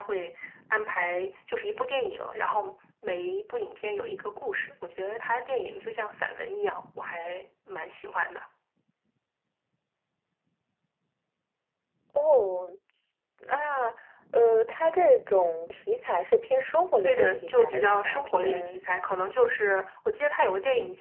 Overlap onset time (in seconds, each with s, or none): 17.0 s